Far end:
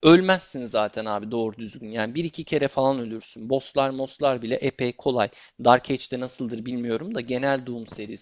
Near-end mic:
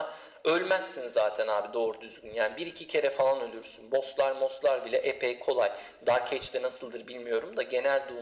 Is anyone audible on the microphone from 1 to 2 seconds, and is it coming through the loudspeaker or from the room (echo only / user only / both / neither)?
echo only